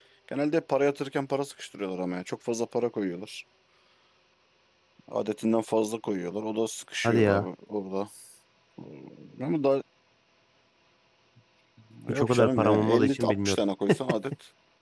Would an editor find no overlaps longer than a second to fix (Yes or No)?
No